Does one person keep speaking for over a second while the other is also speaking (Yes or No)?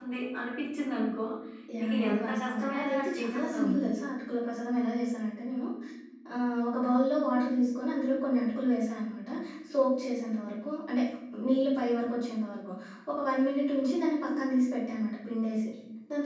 Yes